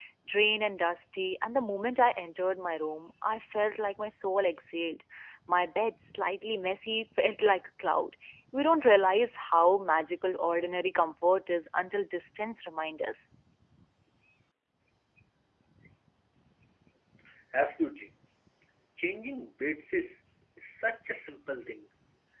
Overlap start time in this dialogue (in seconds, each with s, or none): none